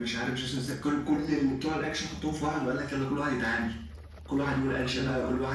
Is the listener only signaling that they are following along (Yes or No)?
Yes